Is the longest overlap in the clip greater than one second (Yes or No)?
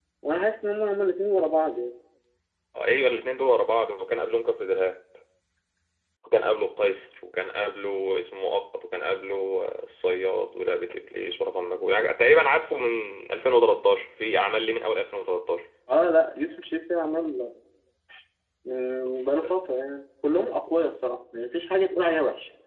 No